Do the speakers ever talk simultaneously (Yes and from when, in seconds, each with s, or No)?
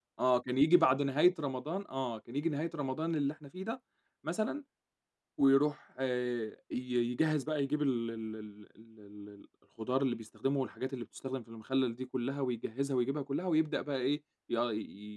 No